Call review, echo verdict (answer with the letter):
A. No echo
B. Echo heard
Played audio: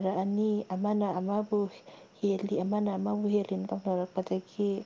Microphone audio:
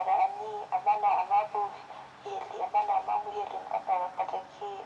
B